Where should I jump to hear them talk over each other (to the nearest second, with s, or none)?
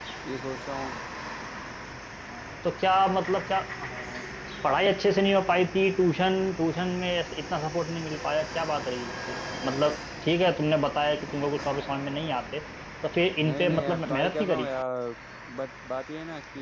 13 s